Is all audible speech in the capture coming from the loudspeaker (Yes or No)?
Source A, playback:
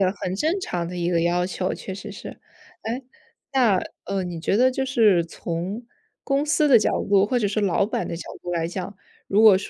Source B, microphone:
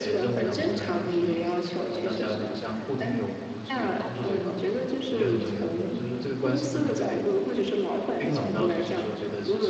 No